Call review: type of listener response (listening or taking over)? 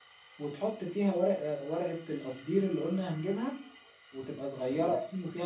listening